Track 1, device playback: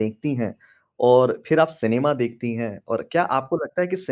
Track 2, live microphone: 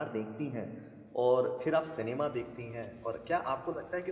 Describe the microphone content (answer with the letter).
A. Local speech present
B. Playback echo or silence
B